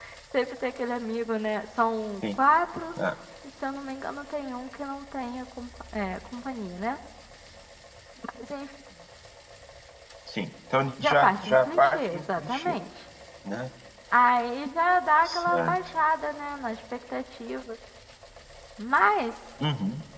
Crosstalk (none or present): present